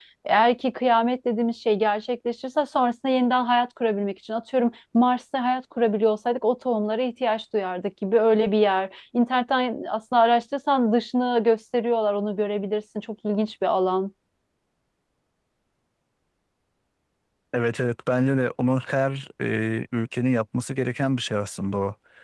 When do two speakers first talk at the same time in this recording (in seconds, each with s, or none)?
none